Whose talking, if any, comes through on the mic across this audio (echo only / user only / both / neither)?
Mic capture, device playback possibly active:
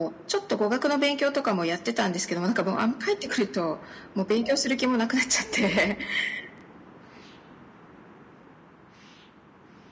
echo only